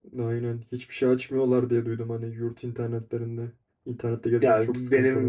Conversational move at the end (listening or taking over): taking over